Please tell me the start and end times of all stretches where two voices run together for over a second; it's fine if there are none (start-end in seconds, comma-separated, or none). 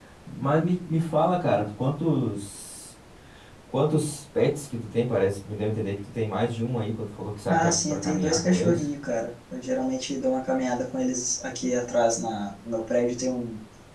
7.5-8.8